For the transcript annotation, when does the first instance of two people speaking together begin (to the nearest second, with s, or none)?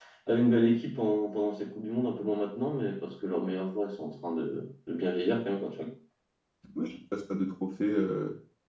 none